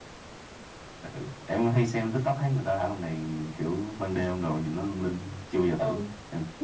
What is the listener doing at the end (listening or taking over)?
taking over